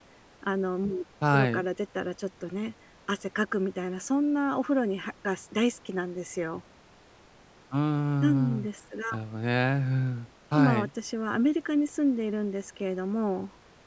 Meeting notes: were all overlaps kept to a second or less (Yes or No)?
Yes